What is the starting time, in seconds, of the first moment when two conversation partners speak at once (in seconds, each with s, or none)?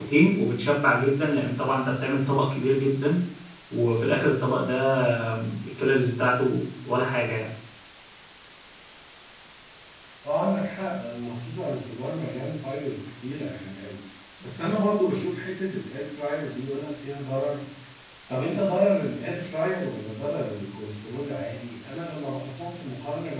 none